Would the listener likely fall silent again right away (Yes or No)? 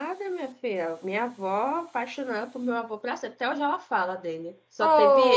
No